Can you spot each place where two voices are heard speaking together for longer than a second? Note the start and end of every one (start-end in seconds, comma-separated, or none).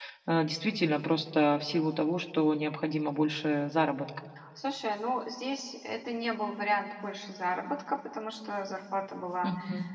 none